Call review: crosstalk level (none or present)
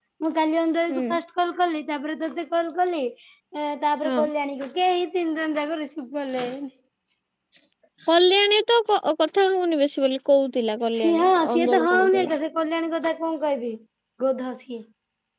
present